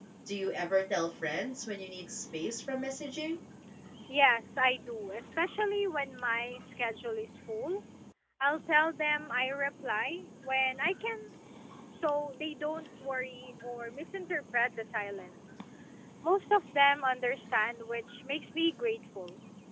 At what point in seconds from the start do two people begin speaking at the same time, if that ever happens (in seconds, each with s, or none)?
none